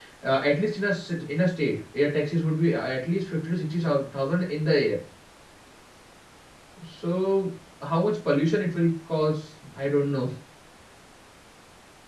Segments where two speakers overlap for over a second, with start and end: none

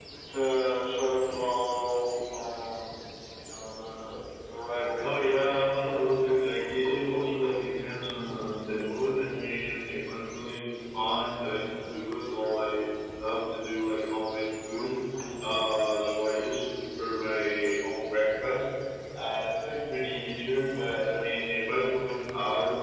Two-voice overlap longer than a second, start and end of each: 5.0-6.4

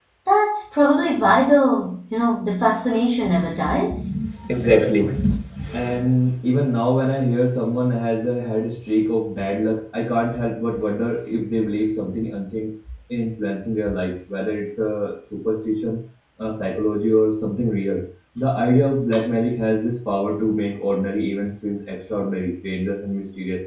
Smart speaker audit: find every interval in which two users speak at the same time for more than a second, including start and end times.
none

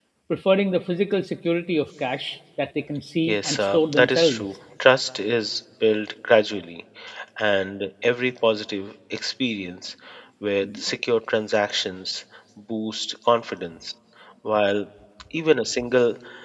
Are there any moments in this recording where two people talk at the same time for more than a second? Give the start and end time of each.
3.2-4.5

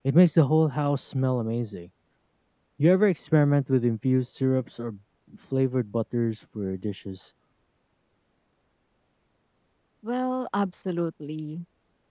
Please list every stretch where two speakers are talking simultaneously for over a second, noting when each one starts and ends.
none

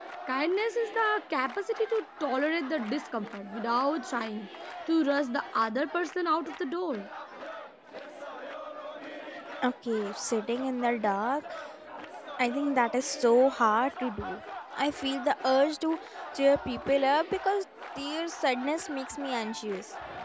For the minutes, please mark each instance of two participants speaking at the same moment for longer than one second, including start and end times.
none

